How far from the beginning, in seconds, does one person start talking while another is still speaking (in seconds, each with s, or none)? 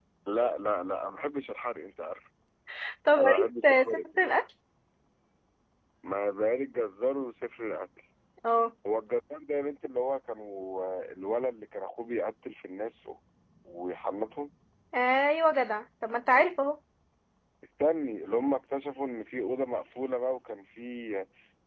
3.2 s